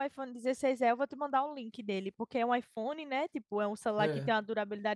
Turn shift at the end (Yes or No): No